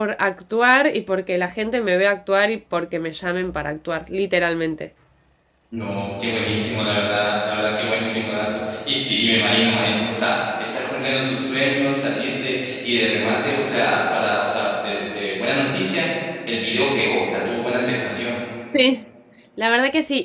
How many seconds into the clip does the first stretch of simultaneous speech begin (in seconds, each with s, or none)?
none